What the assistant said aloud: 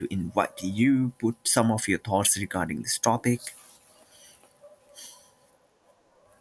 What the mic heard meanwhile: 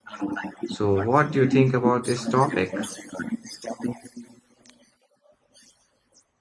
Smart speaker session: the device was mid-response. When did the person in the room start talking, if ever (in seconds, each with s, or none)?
0.7 s